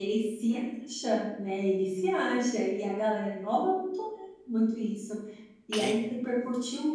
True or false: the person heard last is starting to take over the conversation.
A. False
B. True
A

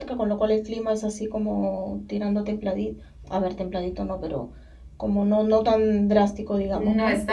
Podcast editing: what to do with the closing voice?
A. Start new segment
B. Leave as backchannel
A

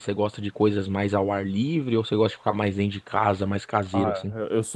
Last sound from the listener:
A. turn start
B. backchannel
A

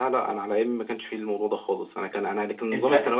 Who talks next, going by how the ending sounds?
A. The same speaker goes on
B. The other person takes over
A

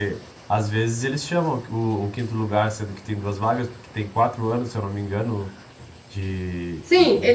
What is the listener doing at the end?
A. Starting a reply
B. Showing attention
A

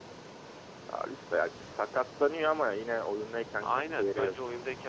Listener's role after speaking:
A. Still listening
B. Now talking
B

